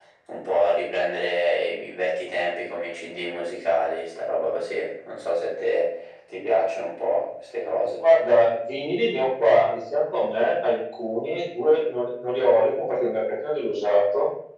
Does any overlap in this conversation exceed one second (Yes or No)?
No